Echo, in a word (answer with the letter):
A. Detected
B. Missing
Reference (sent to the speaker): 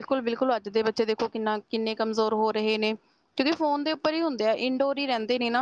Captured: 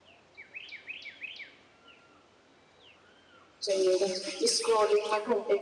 B